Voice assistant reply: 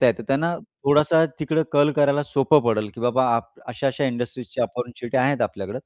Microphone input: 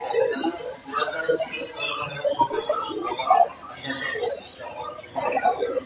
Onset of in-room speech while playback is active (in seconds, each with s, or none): none